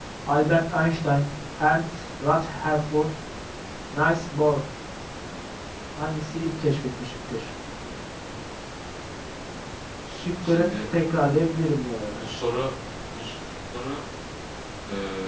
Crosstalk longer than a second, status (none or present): none